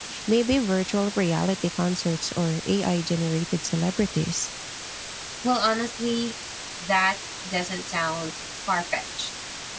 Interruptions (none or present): none